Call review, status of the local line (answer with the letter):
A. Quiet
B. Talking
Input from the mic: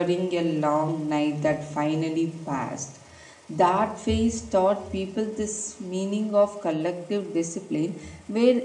A